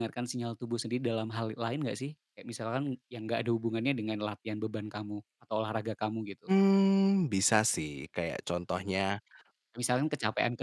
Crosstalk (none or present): none